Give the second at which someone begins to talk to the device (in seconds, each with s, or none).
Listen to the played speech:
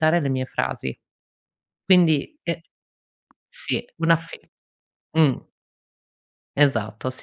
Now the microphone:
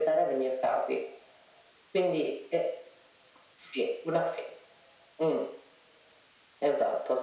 none